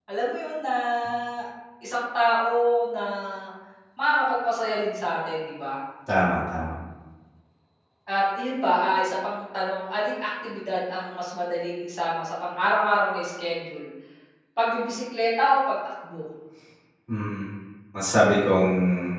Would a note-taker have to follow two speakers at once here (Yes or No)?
No